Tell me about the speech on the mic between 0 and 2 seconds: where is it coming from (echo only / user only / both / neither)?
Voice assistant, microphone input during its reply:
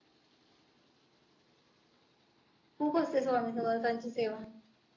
neither